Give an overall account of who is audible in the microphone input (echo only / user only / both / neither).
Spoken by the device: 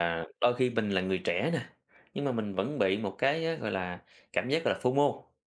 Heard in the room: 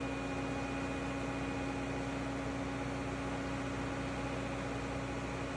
neither